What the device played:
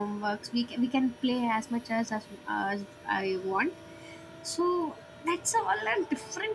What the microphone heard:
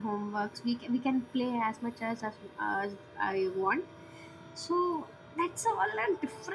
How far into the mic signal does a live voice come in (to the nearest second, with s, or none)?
none